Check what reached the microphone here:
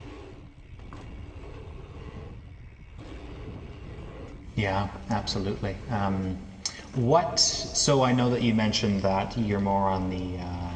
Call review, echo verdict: none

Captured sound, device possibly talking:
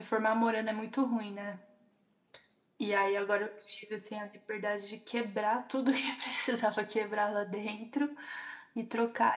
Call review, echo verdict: none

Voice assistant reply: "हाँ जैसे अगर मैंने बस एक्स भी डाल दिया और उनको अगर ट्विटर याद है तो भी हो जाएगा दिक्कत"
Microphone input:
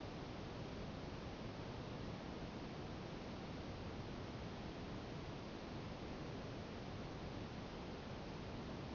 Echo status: none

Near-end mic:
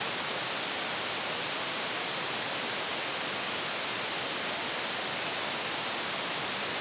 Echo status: none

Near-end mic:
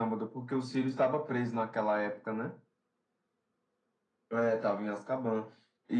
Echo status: present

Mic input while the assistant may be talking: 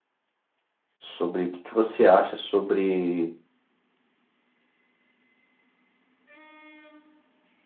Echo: none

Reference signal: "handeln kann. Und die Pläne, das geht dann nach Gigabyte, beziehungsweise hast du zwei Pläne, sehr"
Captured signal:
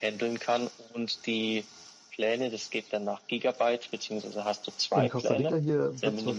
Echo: present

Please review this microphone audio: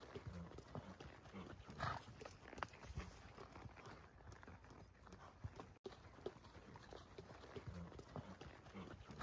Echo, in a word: none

